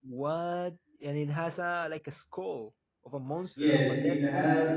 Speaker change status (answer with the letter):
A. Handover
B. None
A